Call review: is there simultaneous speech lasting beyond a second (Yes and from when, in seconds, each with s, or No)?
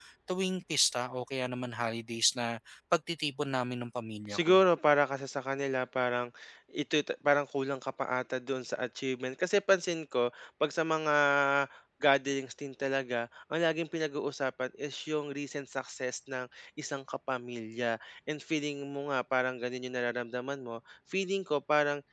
No